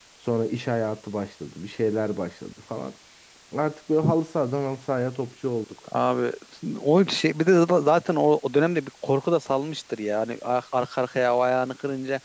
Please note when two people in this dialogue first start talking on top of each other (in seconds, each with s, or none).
none